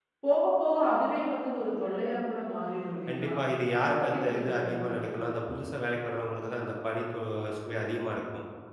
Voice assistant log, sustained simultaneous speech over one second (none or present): present